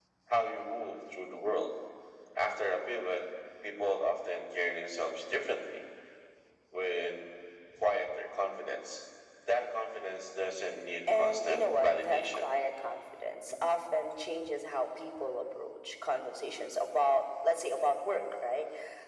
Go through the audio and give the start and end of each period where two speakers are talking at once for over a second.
11.1-12.5

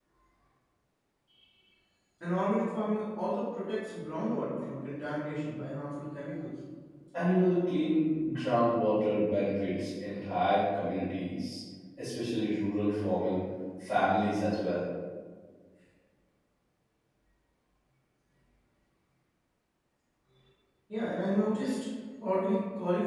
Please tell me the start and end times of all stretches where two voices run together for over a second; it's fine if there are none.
none

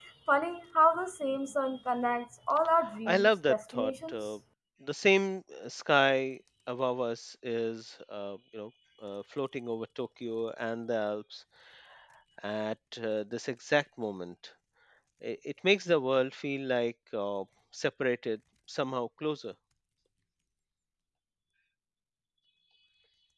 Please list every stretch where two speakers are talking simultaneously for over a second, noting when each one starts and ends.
3.0-4.3

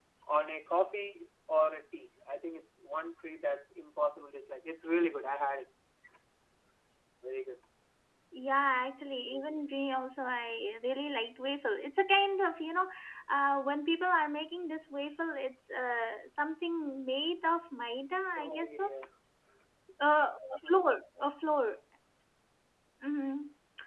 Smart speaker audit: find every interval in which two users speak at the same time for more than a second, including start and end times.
none

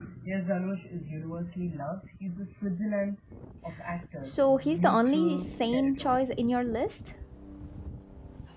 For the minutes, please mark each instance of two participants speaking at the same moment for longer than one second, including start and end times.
4.2-6.2

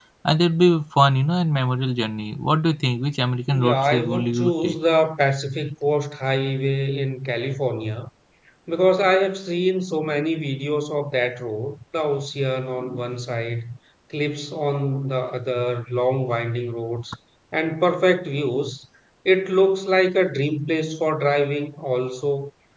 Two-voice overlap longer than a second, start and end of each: 3.5-4.8

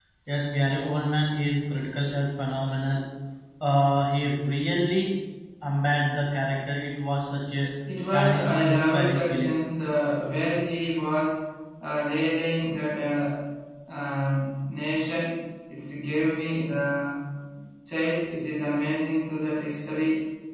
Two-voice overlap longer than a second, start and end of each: 8.1-9.5

